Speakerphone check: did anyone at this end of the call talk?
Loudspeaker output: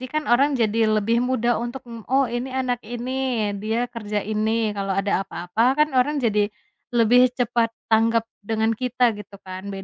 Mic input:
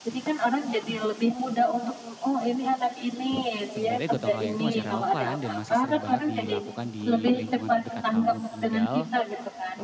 Yes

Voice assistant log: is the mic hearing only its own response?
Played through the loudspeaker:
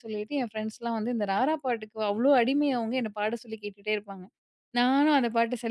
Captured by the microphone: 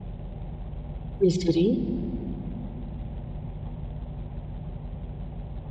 No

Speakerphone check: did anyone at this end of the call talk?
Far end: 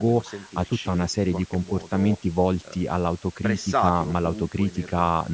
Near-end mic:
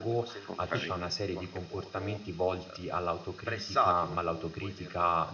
Yes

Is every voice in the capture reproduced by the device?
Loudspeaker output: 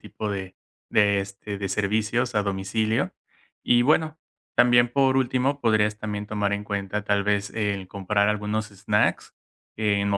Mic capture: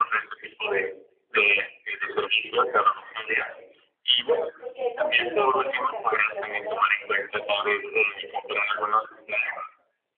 No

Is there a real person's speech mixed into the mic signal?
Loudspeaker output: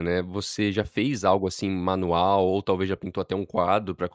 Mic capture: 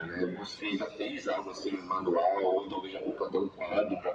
No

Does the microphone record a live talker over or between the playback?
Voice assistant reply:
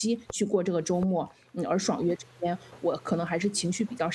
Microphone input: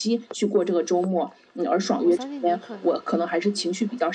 Yes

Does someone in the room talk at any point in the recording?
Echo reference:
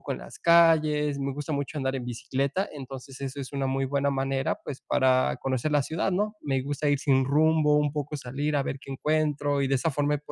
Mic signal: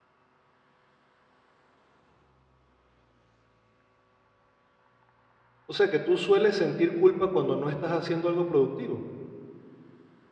Yes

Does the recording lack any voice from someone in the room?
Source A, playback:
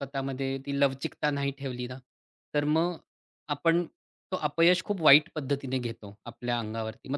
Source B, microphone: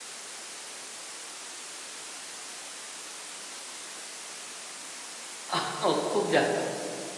No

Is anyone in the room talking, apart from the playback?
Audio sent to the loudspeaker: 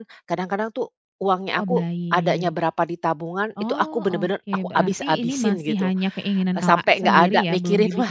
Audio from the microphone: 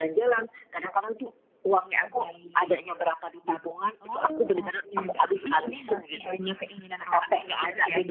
No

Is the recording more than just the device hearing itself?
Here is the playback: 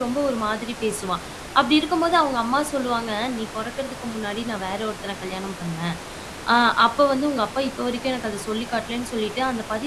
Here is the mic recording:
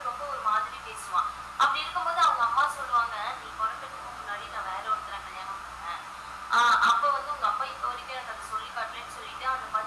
No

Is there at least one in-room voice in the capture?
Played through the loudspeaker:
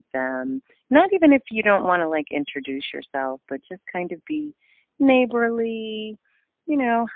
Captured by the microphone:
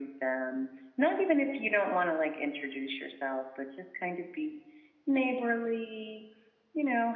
No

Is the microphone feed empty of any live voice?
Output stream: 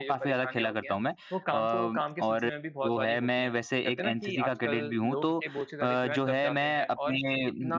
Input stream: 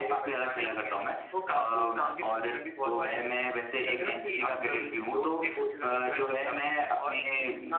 Yes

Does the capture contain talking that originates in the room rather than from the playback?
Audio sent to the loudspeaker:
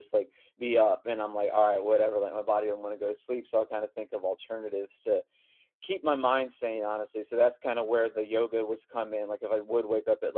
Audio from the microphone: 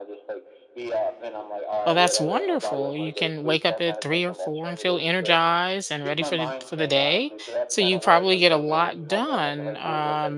Yes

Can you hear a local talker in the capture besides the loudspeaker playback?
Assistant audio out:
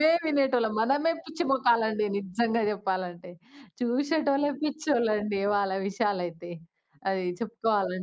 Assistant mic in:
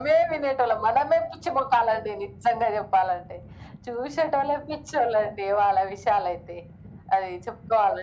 No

